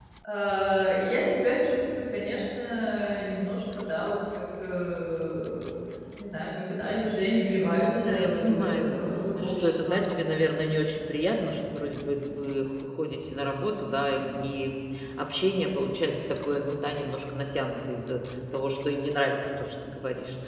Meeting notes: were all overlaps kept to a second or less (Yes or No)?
No